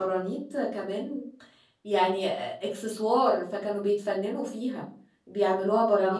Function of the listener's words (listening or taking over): listening